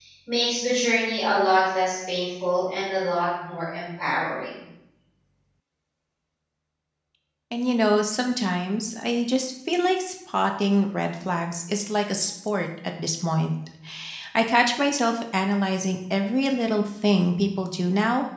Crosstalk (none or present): none